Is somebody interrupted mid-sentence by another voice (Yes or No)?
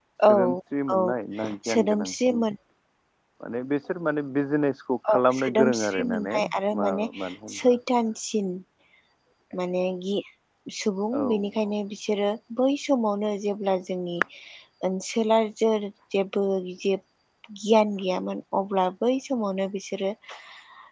Yes